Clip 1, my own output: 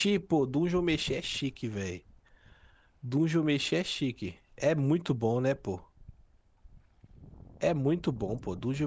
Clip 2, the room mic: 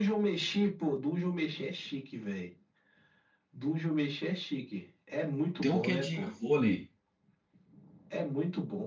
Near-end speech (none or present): present